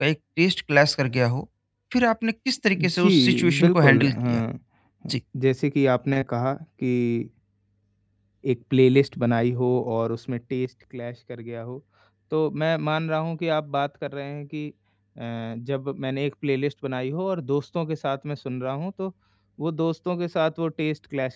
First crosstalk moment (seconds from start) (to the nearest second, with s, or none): 3 s